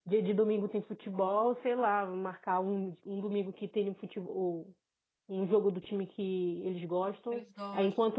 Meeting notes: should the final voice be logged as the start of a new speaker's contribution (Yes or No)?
No